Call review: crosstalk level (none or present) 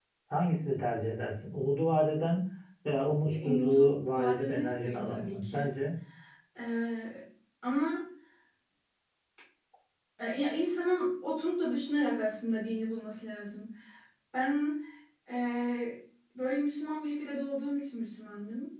present